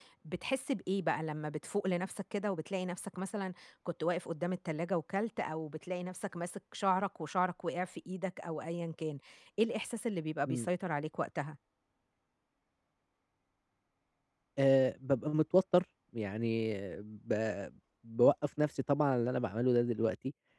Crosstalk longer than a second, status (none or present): none